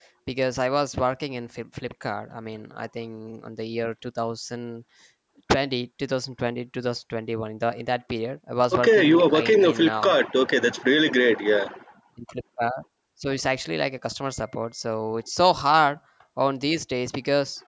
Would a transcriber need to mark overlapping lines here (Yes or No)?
Yes